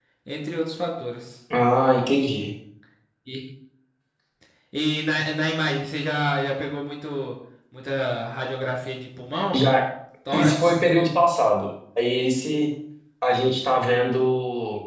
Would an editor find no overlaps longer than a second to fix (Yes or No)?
Yes